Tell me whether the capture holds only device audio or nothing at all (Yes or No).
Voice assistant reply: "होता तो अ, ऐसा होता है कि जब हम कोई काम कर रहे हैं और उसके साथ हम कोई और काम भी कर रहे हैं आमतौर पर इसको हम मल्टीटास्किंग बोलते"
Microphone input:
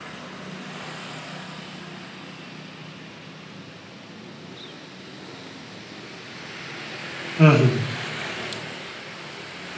No